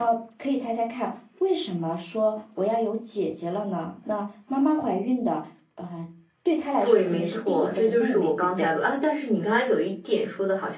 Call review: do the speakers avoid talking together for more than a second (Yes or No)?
No